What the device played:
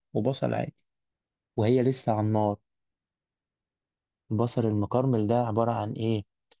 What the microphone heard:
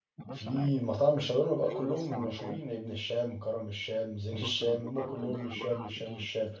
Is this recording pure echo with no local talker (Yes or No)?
No